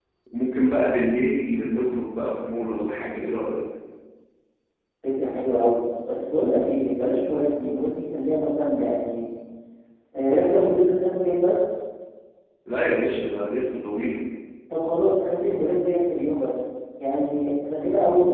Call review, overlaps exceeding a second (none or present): none